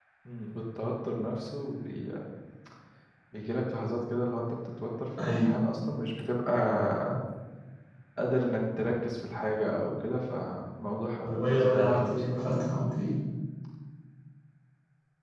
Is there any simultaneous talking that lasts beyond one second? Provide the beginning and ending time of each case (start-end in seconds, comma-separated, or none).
11.3-12.5